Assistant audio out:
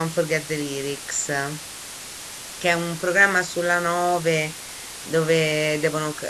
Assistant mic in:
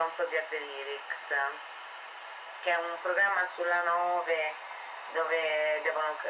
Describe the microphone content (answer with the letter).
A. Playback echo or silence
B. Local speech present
A